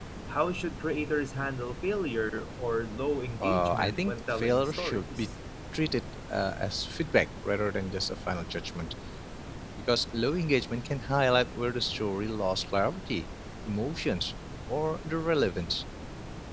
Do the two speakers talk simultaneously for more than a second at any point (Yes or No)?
Yes